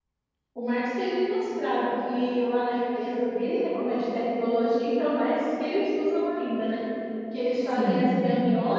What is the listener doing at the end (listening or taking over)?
listening